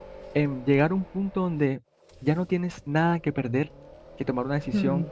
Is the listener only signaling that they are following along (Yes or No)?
Yes